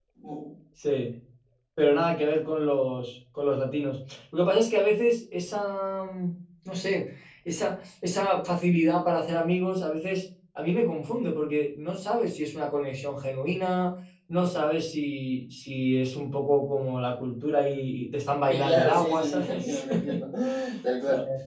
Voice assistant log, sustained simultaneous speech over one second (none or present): present